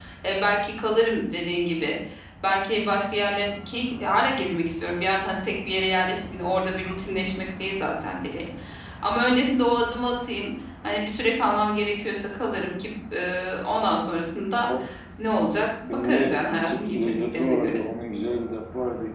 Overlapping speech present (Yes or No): Yes